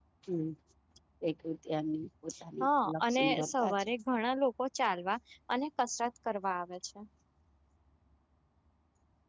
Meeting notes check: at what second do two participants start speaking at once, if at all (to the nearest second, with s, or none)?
3 s